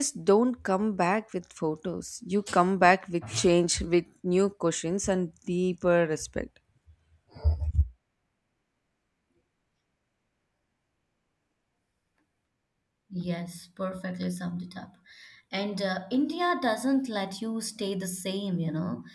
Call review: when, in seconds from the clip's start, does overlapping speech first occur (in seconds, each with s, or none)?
none